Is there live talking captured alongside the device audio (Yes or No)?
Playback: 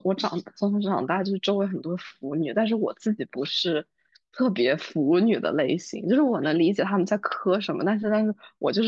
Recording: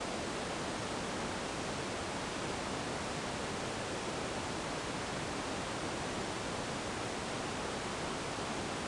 No